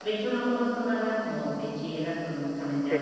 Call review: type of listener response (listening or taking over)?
taking over